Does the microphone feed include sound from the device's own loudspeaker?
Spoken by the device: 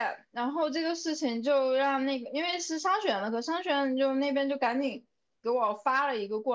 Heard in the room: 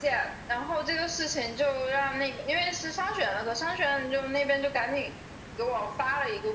Yes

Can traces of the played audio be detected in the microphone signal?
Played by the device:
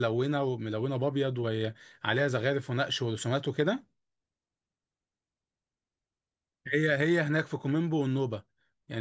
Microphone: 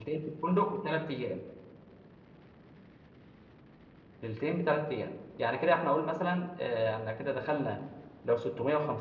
No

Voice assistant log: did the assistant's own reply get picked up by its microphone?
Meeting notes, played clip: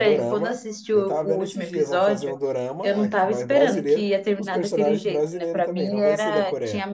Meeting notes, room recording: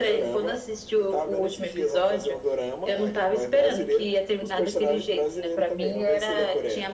Yes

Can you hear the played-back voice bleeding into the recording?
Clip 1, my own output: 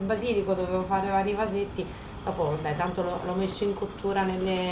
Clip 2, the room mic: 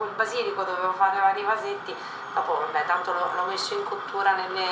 Yes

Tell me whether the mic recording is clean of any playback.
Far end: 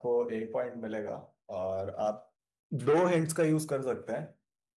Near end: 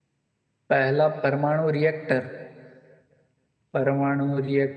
Yes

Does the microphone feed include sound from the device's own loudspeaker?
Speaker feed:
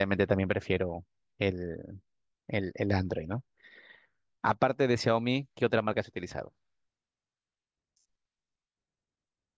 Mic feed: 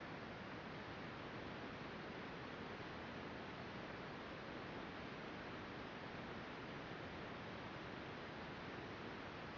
No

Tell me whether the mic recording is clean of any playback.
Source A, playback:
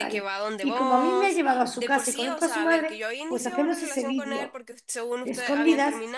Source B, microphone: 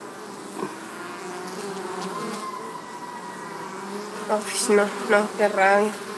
Yes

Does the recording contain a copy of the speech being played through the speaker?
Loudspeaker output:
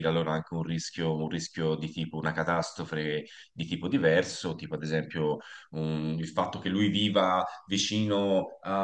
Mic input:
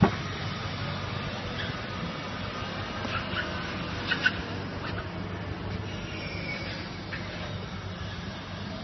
No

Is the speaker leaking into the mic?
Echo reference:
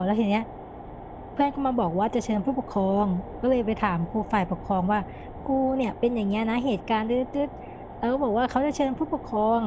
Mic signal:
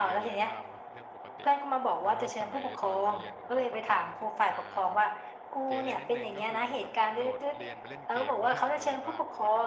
Yes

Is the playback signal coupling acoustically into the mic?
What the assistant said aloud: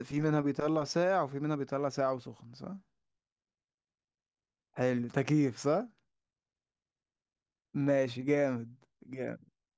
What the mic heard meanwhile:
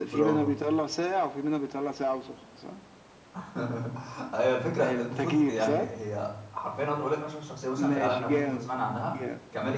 Yes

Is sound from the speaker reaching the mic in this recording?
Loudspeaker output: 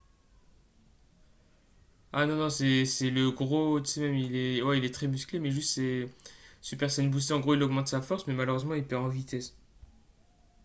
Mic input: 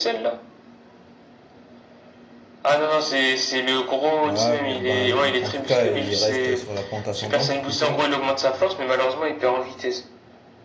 Yes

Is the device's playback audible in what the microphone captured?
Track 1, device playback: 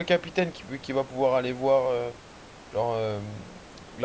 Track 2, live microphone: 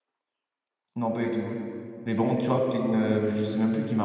No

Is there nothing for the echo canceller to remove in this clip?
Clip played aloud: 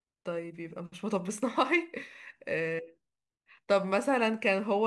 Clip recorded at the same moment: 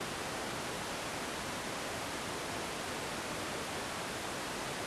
Yes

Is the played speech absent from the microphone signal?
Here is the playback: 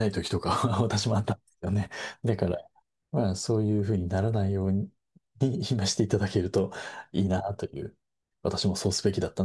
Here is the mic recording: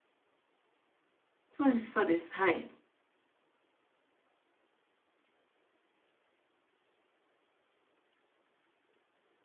Yes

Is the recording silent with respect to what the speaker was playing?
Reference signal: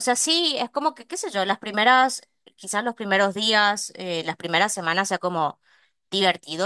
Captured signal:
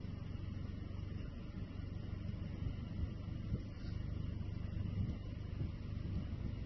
Yes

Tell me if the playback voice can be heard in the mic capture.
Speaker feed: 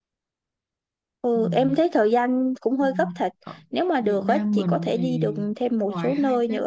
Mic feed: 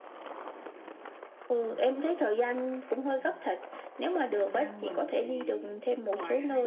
Yes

